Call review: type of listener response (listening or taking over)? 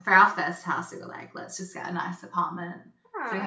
listening